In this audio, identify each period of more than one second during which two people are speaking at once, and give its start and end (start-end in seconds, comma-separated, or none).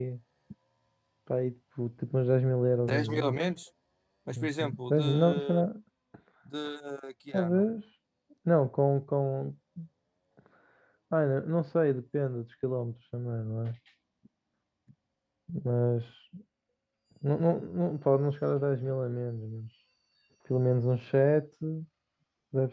4.3-5.6